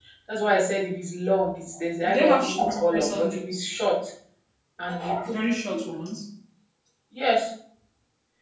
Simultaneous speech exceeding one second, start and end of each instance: 2.0-3.6

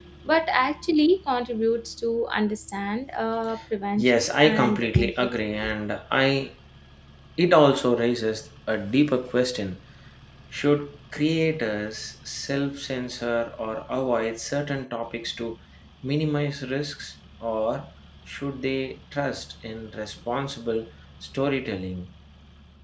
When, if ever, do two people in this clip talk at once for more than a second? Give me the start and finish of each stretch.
4.0-5.7

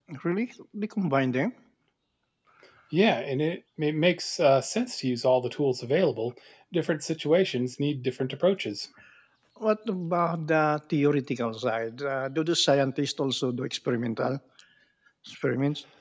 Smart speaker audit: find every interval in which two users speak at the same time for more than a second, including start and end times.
none

